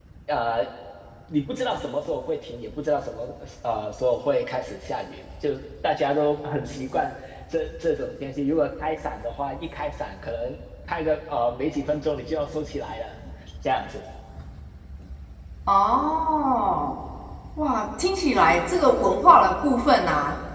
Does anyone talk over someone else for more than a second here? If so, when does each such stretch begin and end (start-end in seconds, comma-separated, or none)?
none